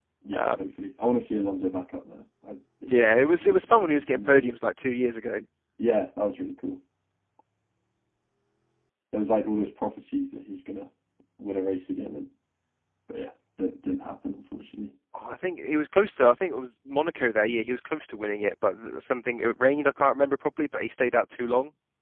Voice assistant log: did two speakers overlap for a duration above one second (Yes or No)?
Yes